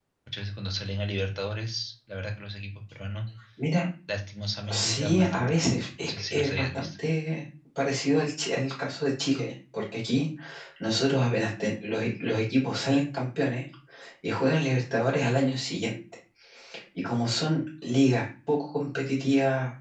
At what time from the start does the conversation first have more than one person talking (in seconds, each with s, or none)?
4.7 s